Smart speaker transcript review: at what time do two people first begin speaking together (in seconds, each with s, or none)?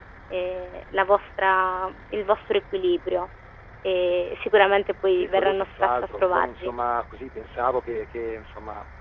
5.2 s